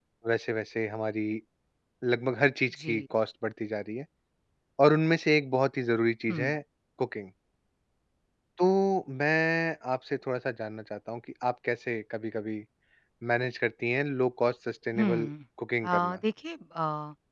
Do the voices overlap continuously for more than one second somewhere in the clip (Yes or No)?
No